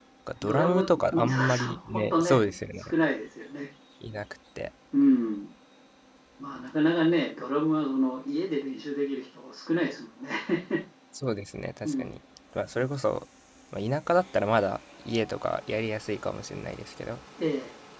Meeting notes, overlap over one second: present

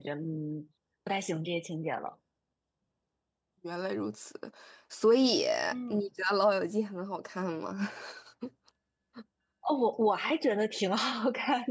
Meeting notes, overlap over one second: none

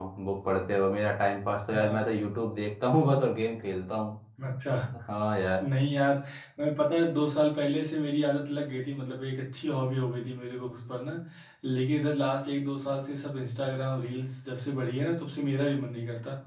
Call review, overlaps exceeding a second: none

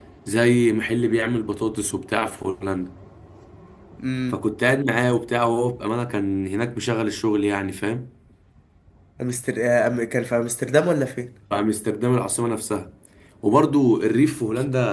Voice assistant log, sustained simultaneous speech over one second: none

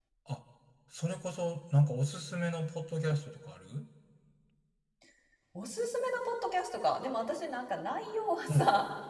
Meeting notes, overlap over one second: none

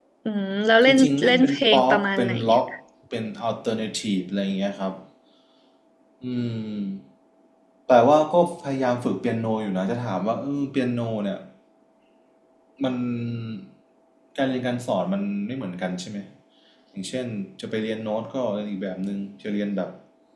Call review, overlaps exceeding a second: present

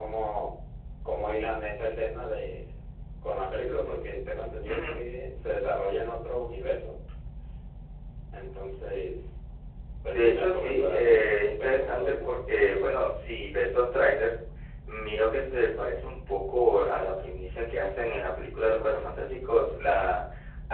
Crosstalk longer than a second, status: present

